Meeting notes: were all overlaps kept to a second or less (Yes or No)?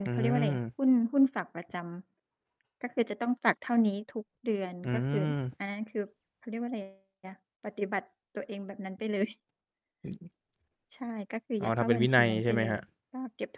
No